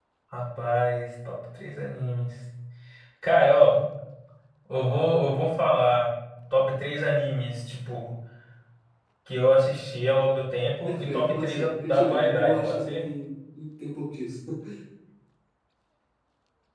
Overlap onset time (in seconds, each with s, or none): 10.8 s